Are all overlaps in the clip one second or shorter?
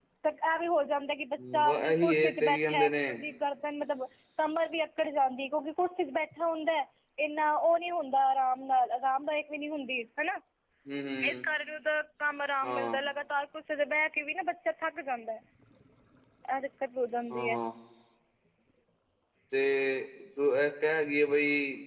No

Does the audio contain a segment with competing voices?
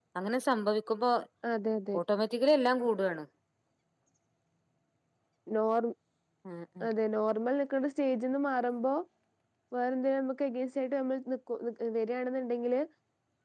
No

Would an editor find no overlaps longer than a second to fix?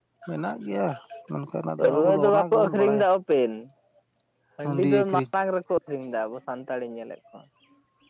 No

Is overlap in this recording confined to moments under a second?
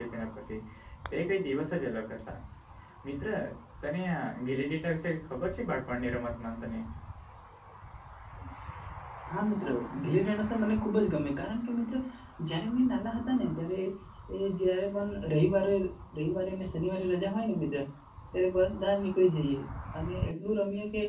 Yes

